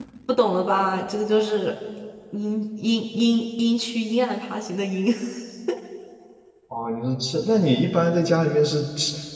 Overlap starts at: none

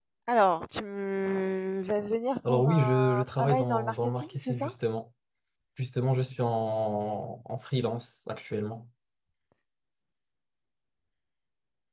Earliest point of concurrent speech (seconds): 2.5 s

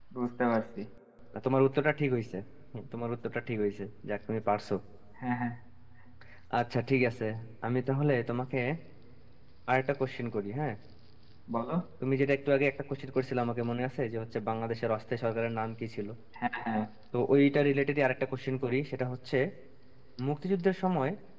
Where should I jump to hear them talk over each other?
none

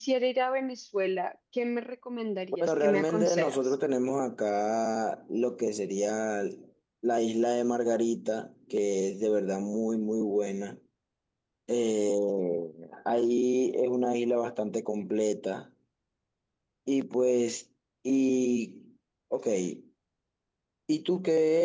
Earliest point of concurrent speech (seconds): 2.5 s

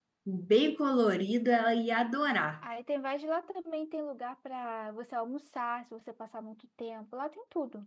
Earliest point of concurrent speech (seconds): none

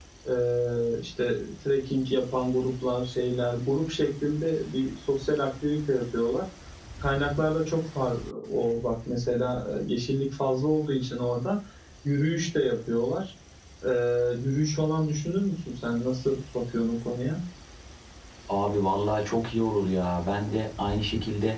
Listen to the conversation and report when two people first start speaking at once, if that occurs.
none

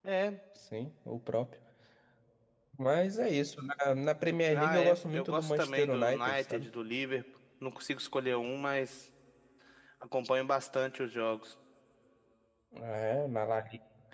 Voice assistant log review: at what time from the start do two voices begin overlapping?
4.5 s

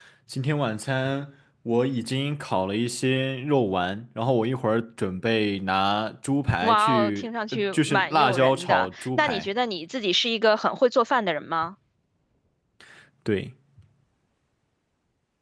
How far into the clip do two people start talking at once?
6.6 s

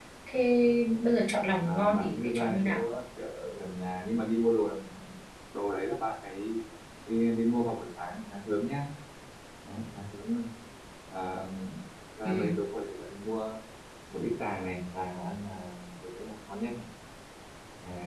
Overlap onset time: 1.6 s

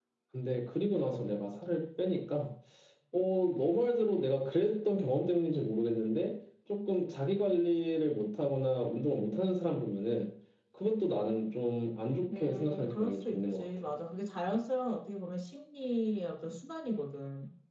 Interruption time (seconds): 12.3 s

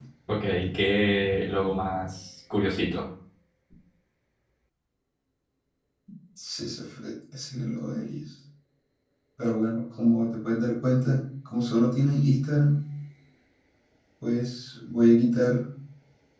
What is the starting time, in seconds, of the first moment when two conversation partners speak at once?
none

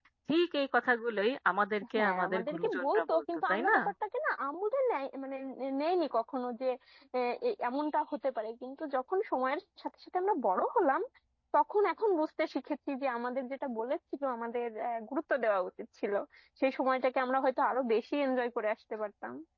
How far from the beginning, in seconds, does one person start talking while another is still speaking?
1.9 s

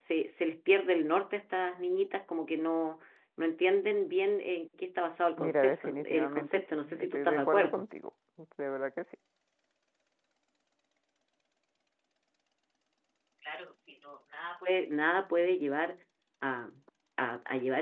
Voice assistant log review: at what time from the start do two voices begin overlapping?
5.4 s

